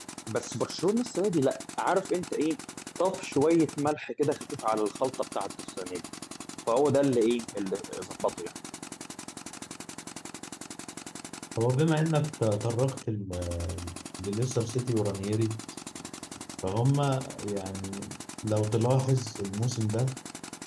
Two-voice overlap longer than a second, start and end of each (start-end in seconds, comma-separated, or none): none